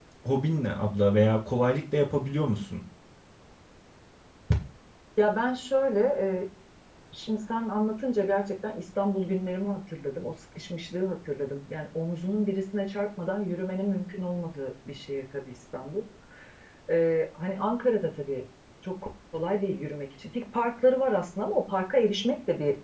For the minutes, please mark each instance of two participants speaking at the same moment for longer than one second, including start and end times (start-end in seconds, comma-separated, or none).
none